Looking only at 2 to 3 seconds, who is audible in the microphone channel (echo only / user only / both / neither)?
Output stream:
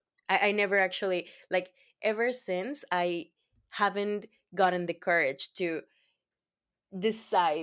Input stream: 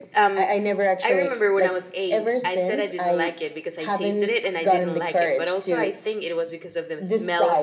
both